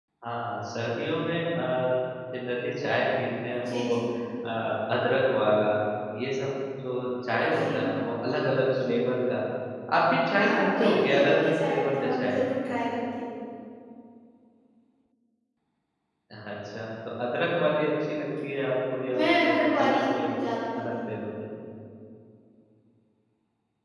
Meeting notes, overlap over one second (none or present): present